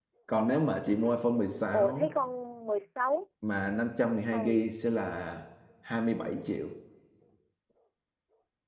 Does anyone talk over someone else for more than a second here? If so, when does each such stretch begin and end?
0.8-2.1

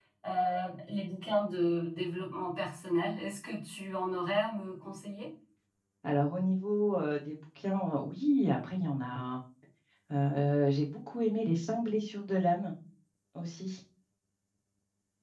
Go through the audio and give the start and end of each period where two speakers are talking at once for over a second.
none

